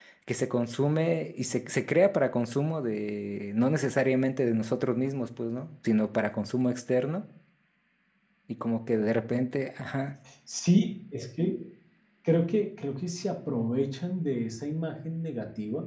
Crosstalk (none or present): none